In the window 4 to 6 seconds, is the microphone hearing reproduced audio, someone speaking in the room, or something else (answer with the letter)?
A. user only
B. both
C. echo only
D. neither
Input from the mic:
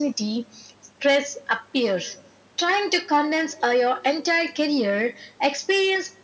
C